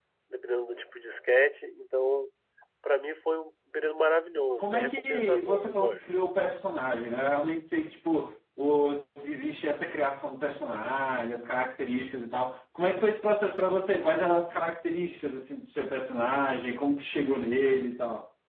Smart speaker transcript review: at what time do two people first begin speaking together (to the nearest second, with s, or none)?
5 s